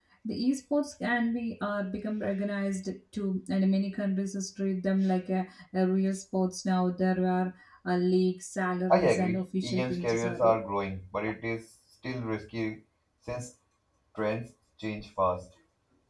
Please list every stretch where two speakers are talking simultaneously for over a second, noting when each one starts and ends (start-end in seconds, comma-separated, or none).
8.9-10.6